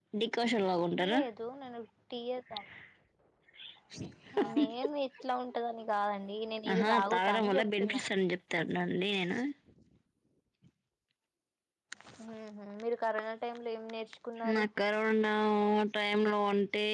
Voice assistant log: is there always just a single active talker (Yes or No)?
No